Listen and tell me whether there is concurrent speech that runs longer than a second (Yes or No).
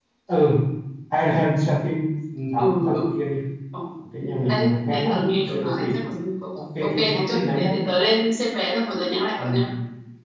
Yes